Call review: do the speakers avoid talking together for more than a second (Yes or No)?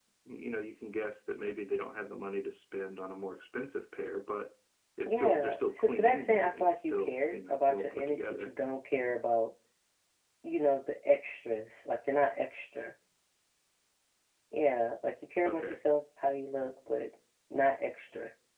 No